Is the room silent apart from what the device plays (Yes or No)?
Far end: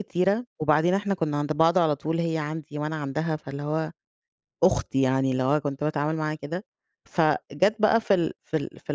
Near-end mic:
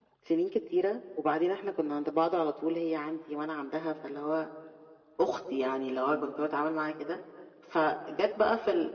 Yes